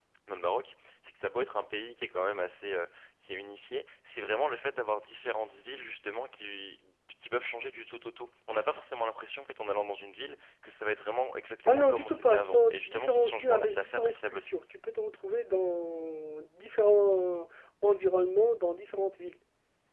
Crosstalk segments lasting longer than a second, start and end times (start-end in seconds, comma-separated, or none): 11.7-14.6